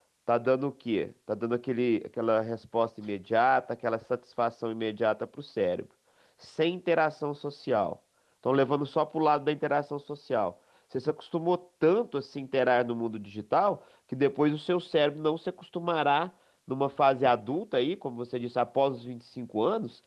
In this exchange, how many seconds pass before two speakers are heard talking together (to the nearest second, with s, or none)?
none